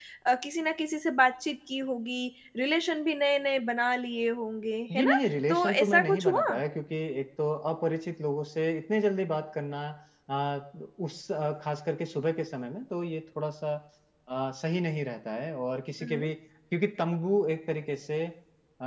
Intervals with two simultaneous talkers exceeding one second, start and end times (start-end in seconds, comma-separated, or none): 5.0-6.6